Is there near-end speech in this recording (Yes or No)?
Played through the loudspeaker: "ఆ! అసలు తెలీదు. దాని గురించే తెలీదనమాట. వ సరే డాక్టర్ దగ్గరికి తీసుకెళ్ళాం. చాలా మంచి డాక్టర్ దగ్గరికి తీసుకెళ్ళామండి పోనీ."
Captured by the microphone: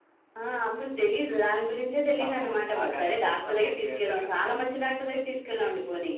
Yes